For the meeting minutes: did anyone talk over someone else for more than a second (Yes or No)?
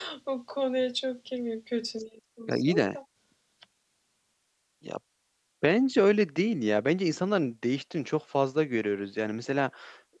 No